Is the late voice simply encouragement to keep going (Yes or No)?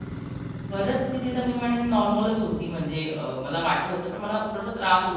Yes